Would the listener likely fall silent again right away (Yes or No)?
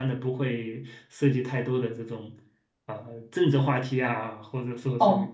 No